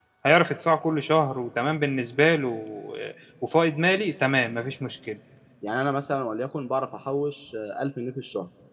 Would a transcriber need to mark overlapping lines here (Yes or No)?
No